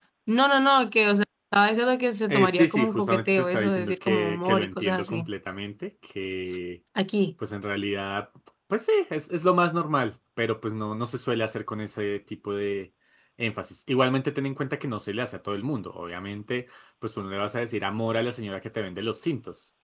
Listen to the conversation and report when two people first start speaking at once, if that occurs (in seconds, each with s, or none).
2.3 s